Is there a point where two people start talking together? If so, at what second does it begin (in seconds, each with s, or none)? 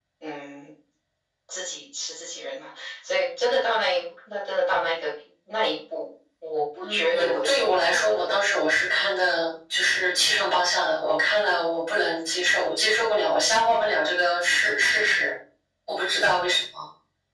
6.8 s